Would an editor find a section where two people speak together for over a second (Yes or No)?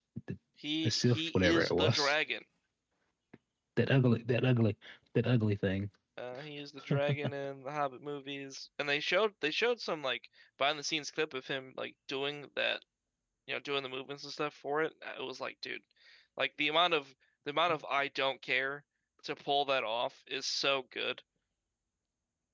Yes